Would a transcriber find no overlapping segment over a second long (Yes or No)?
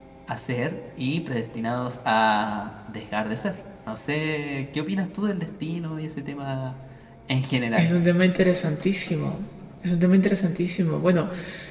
Yes